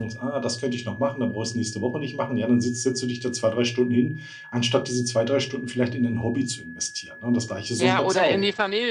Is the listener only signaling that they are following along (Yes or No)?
No